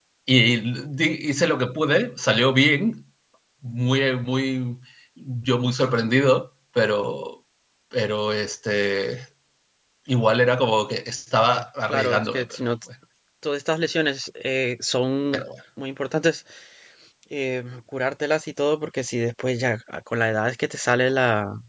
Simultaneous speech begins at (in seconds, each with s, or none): 11.3 s